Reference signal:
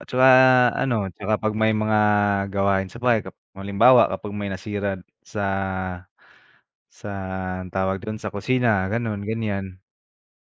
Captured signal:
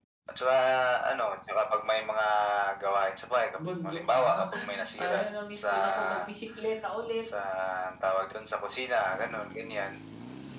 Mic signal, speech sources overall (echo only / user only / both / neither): both